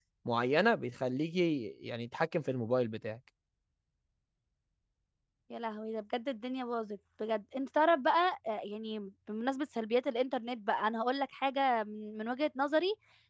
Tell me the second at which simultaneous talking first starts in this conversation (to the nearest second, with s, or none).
none